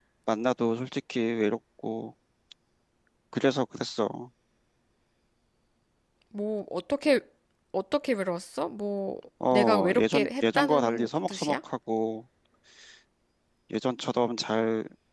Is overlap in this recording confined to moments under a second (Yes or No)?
No